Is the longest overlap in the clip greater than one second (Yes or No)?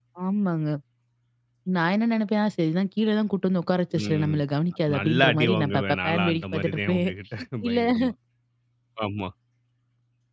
Yes